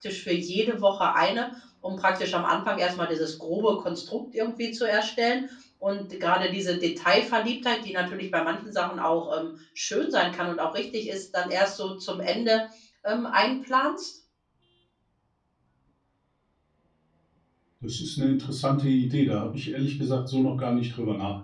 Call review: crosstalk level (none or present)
none